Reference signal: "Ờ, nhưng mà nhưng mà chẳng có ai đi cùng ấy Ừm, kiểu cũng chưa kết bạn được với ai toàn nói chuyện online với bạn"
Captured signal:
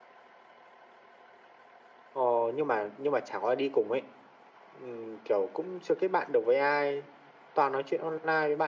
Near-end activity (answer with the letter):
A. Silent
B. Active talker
A